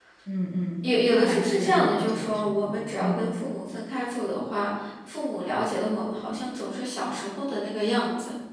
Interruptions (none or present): present